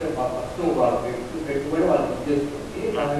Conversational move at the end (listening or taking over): listening